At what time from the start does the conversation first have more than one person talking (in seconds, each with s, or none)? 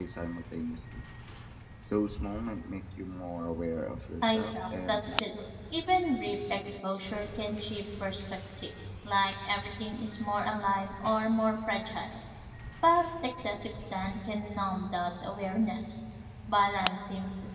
4.2 s